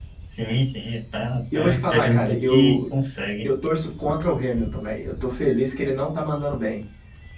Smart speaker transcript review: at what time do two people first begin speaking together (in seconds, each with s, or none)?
1.5 s